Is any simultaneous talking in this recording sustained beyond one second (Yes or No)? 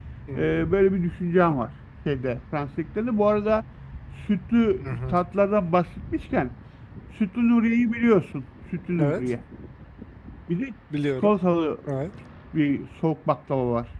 No